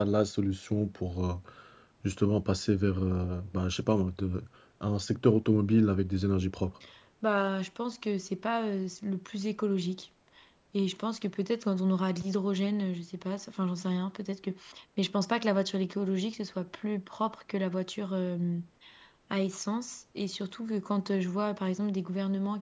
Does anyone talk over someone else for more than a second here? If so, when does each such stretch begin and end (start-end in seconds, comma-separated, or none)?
none